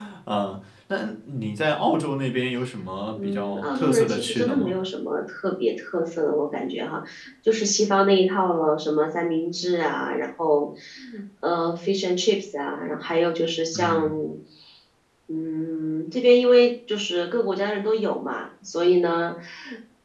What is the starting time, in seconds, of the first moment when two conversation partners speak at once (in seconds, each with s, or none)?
3.2 s